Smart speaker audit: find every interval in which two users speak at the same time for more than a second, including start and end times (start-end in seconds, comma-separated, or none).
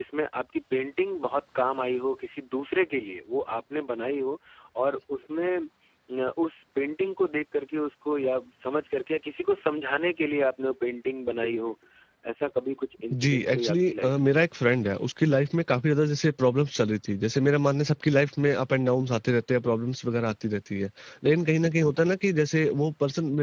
13.1-14.3